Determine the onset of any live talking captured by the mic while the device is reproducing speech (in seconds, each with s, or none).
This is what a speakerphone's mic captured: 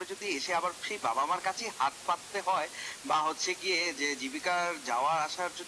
none